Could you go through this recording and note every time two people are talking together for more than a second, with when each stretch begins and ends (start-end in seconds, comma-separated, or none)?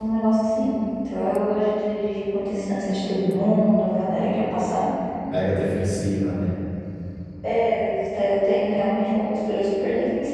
none